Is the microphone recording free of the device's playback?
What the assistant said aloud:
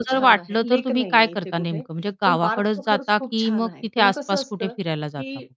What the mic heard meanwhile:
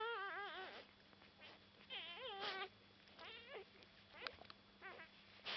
Yes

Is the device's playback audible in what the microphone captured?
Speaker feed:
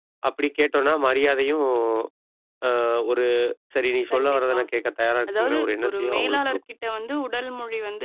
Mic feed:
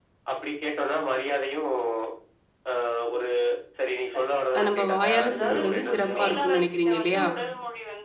Yes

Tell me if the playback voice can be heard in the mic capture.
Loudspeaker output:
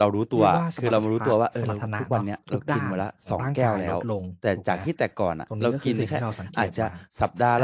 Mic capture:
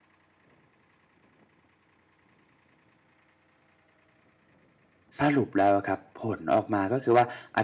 No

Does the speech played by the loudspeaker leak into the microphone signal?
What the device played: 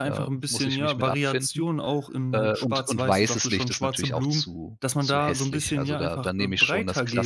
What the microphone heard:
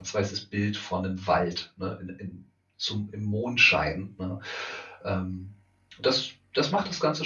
No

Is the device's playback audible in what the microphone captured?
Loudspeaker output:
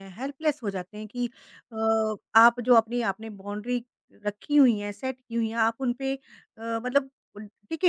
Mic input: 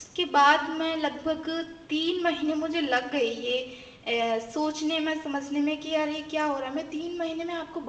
No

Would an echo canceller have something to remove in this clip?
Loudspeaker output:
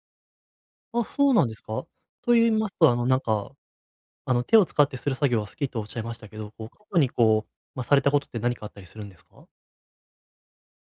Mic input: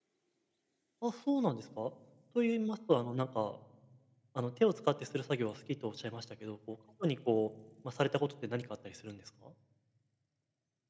Yes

